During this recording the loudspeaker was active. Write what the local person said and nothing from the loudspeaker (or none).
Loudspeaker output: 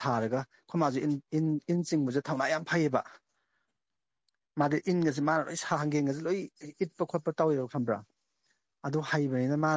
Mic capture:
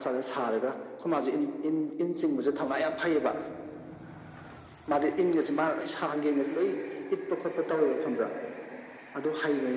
none